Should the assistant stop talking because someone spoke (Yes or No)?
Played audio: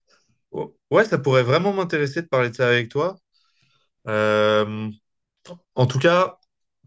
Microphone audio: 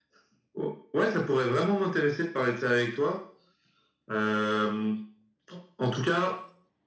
No